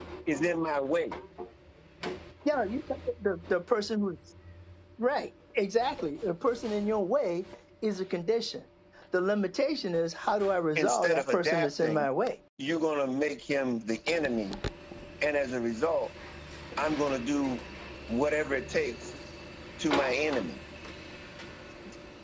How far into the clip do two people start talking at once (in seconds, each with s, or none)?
10.8 s